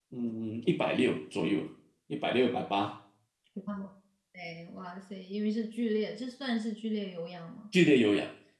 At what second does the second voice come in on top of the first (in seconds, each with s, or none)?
none